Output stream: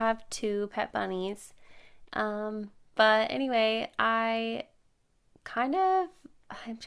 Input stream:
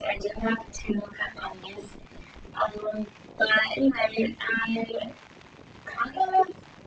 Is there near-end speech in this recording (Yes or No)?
No